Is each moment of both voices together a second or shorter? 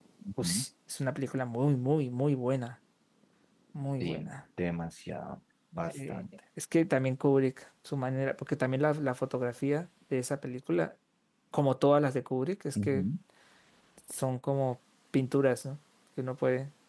Yes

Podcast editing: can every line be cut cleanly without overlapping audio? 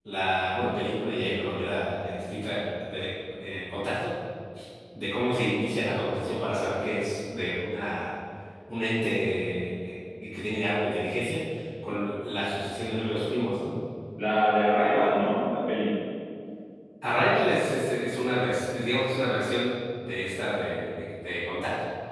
Yes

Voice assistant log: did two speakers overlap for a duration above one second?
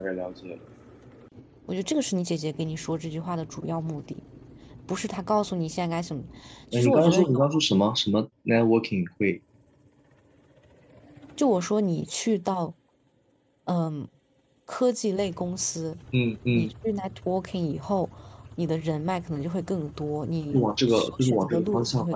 Yes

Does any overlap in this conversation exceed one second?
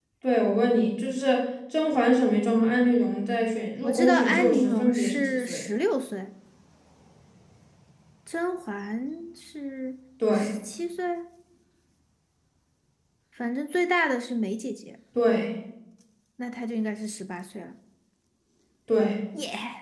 Yes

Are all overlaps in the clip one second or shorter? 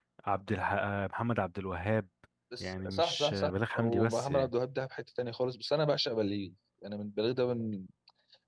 No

